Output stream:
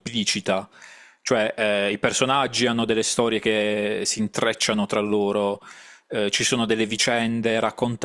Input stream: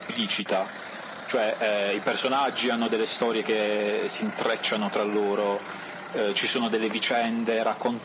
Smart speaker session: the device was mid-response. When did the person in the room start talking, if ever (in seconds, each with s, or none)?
none